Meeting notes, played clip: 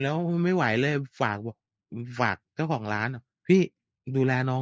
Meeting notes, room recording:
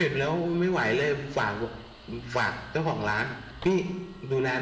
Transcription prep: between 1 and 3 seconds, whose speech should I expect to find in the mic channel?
echo only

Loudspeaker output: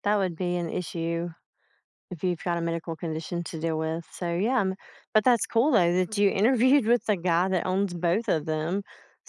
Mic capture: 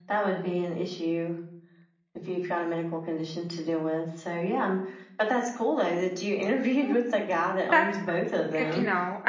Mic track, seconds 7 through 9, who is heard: both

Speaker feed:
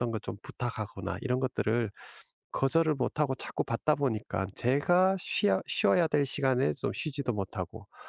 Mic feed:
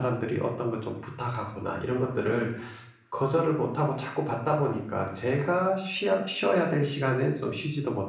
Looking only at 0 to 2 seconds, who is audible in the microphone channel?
echo only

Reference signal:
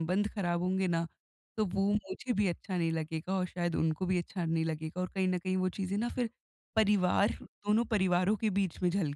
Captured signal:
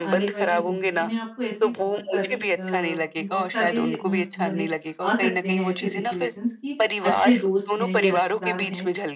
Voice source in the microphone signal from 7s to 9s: both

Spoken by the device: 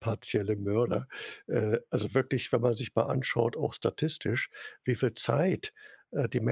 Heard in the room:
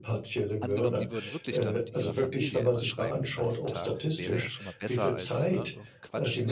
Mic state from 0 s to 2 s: both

